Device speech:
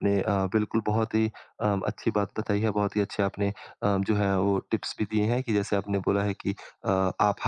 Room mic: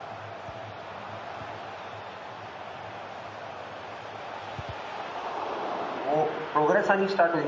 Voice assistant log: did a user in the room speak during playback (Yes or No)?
Yes